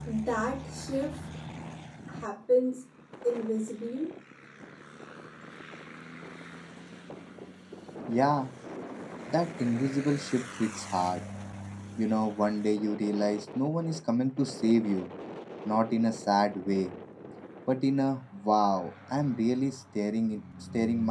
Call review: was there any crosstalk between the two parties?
No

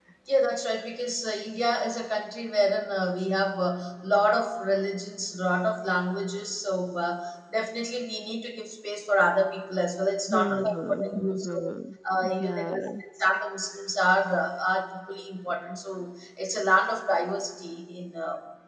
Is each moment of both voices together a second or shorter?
No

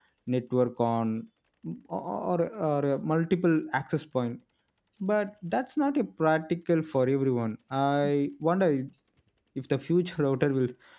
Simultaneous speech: No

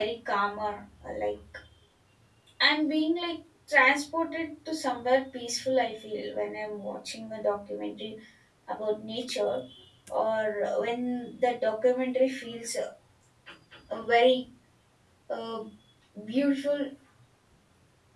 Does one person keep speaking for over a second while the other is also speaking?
No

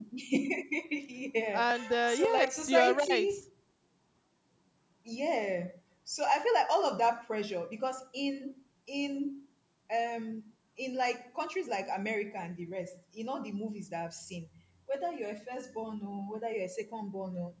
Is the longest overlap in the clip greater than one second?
Yes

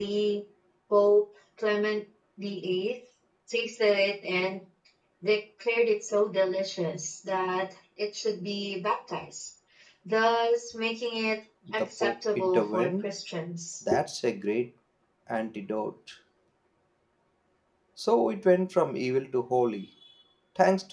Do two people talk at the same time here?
Yes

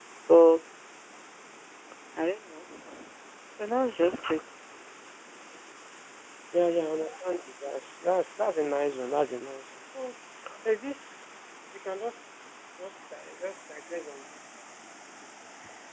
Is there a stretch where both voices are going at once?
No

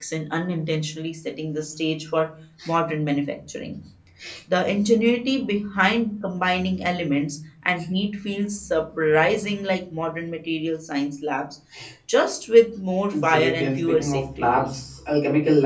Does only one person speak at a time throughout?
No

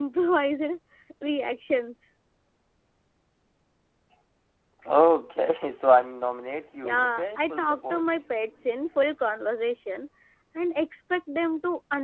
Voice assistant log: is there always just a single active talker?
No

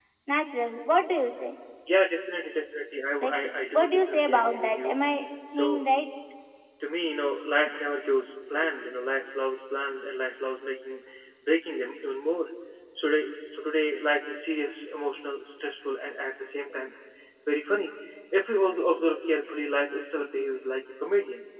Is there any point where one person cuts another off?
Yes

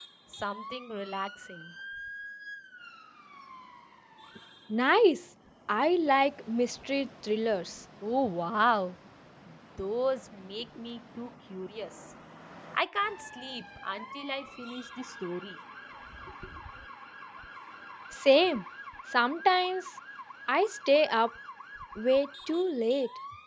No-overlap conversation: Yes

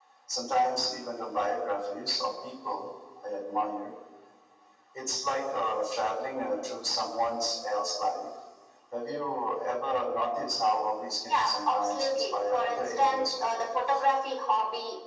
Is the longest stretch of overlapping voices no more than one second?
No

